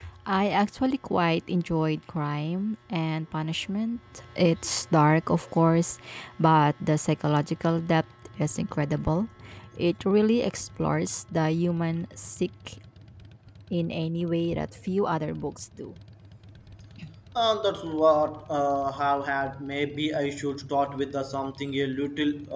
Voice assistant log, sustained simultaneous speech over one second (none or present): none